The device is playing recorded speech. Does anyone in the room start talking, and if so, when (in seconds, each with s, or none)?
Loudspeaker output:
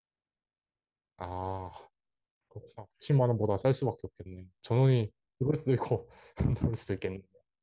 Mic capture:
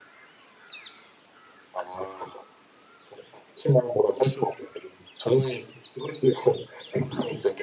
none